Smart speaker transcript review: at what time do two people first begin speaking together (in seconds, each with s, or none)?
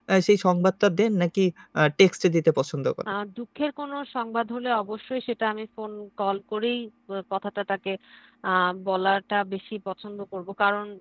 none